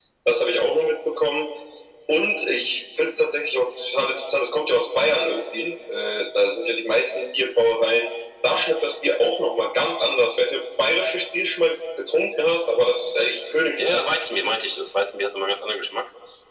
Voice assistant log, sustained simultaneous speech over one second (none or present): none